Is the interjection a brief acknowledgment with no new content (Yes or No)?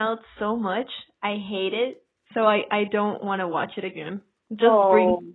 Yes